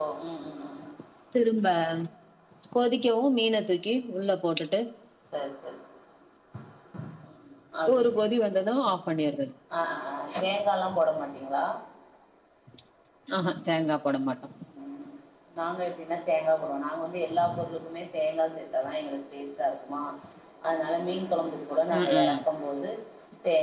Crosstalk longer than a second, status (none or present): none